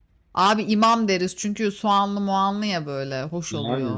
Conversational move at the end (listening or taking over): taking over